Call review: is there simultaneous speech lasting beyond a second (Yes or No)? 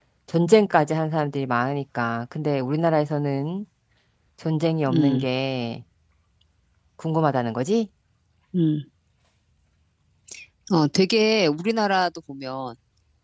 No